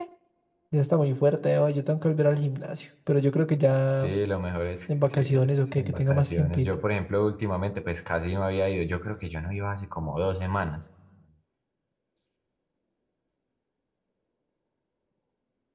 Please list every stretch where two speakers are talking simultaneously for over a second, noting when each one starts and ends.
5.0-6.8

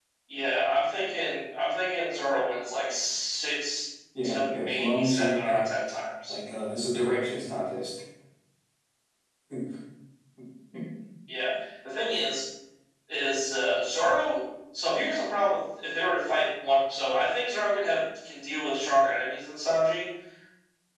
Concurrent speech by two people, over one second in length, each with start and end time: 4.2-5.6

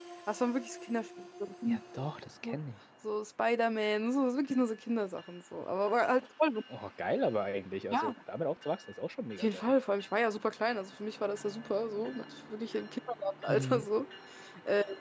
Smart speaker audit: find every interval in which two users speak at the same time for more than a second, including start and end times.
none

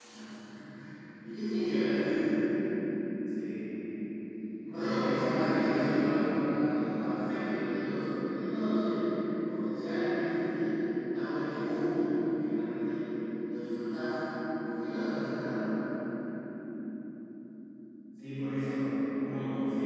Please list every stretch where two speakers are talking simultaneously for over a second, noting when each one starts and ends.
4.7-6.4

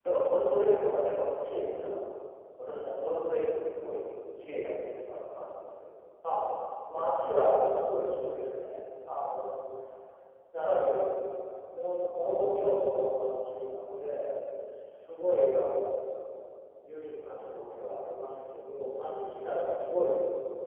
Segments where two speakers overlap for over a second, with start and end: none

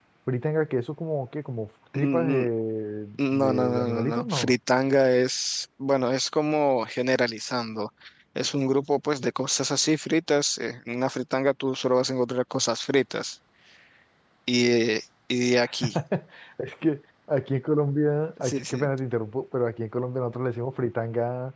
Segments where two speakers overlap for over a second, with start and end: 3.3-4.5

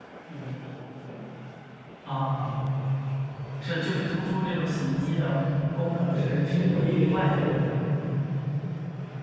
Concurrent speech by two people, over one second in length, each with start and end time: 6.1-7.6

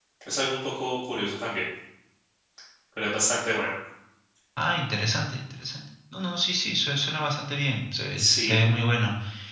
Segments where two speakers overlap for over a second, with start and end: none

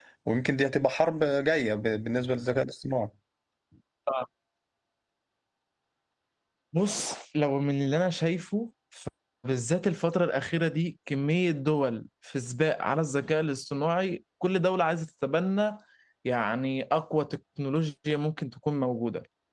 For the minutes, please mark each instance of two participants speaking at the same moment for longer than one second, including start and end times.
none

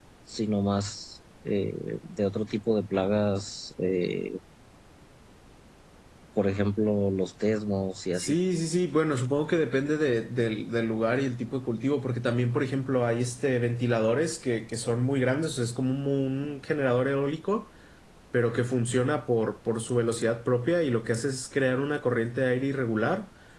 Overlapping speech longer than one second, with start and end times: none

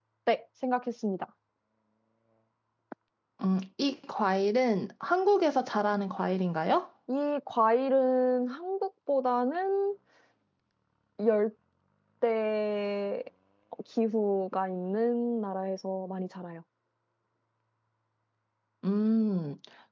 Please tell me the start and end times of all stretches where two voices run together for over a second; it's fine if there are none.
none

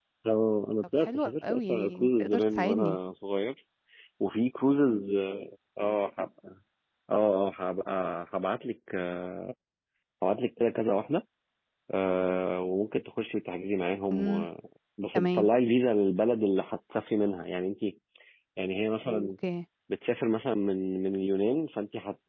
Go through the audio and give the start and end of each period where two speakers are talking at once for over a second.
1.0-3.0

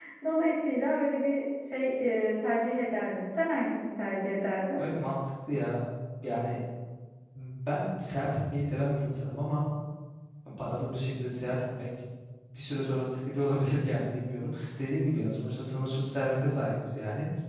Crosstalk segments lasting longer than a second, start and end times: none

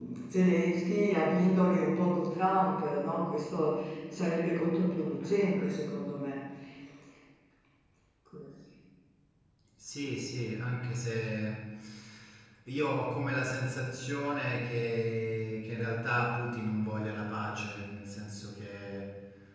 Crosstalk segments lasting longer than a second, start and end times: none

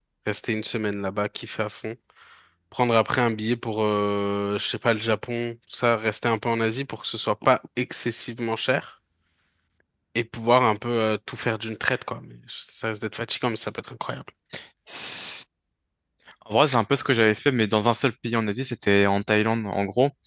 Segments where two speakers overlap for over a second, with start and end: none

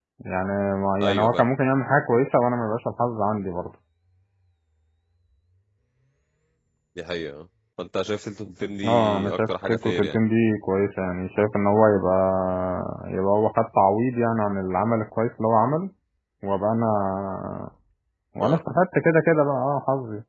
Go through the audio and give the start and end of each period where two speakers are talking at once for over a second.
8.8-10.2

